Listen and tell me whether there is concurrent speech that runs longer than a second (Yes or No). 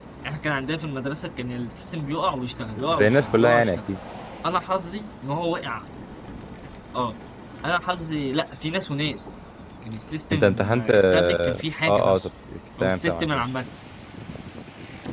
Yes